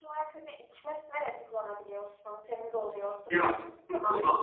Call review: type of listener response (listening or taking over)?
taking over